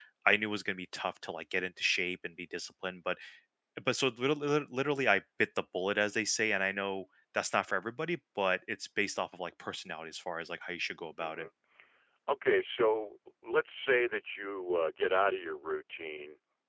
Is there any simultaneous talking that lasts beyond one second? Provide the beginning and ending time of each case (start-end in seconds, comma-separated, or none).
none